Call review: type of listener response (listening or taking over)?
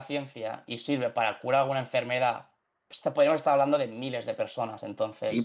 taking over